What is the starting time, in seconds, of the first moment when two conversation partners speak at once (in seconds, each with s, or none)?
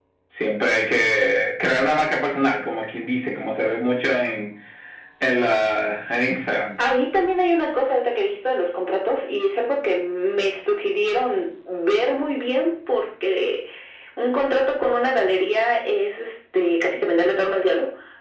none